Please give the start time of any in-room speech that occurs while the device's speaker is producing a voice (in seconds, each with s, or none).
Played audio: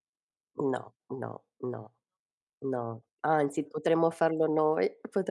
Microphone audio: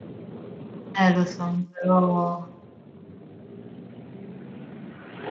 0.9 s